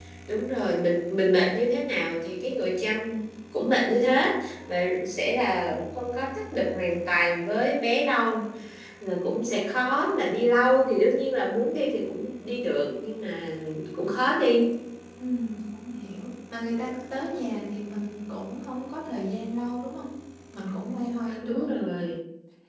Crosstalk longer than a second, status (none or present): none